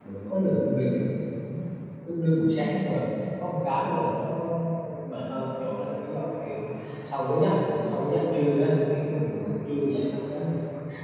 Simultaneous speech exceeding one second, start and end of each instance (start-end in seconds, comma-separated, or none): none